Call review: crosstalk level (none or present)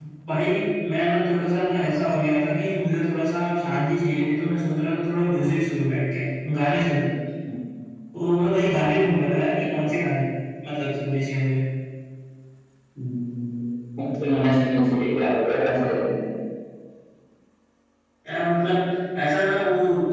none